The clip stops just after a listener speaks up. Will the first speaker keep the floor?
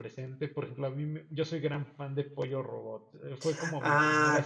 No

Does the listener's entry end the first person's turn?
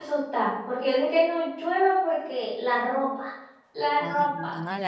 Yes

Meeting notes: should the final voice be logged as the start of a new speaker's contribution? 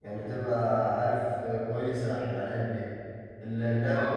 No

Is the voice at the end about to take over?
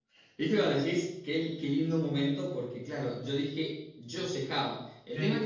No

